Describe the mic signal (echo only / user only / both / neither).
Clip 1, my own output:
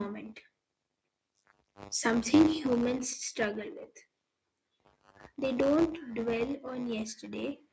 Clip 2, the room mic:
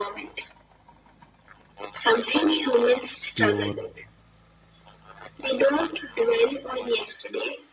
both